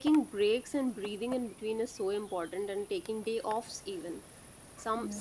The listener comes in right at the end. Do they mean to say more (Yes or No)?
No